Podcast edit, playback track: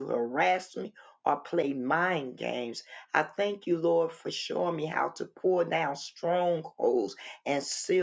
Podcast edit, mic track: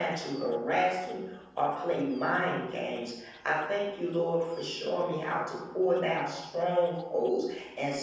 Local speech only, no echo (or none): none